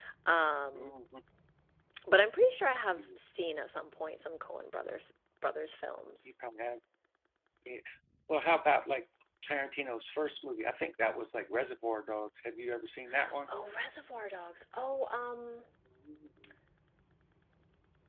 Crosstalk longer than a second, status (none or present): none